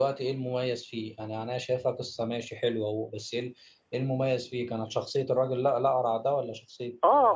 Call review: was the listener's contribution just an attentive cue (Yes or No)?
No